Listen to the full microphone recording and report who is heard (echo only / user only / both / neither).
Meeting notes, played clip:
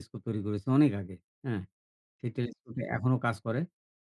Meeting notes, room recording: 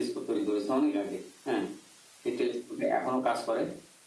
echo only